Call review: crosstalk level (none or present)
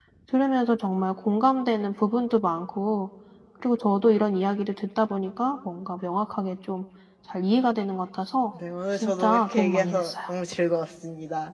present